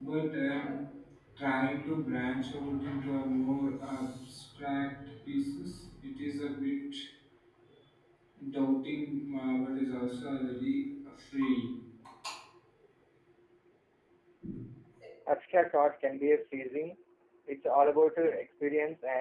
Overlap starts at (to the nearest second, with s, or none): none